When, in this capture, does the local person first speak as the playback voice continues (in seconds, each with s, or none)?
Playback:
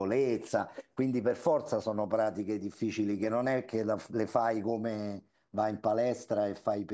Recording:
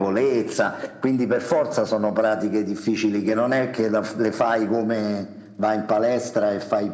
none